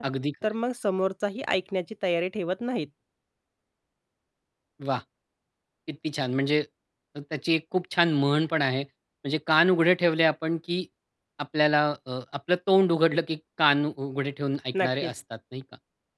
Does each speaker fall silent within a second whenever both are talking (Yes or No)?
Yes